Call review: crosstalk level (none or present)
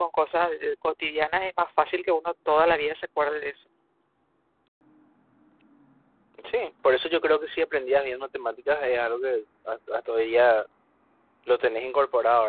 none